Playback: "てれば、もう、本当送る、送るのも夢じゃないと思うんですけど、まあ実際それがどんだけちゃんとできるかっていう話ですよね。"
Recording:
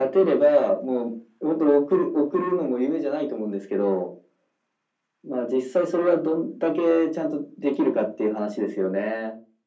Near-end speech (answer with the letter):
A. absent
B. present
A